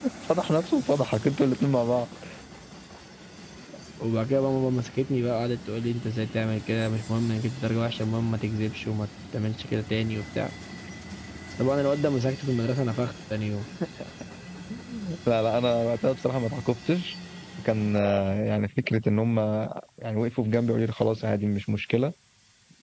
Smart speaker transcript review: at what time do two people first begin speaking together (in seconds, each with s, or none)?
none